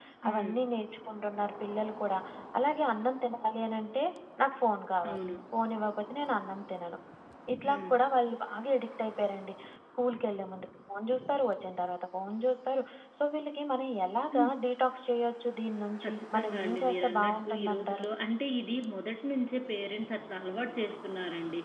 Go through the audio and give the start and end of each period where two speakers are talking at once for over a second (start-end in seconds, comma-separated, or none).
16.0-18.0